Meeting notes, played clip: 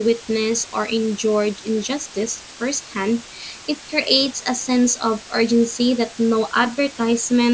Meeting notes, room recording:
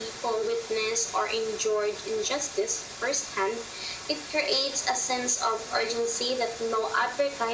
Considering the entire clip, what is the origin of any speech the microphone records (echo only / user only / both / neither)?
echo only